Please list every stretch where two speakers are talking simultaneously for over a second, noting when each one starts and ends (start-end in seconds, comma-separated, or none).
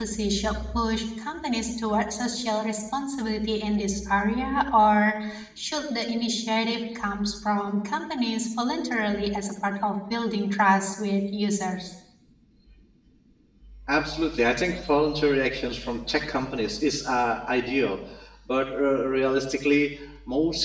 none